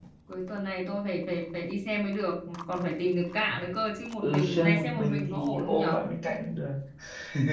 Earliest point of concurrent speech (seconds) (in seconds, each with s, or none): 4.2 s